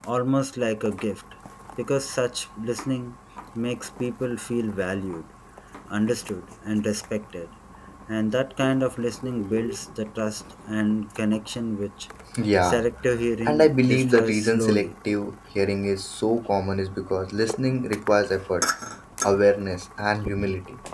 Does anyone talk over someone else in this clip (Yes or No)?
Yes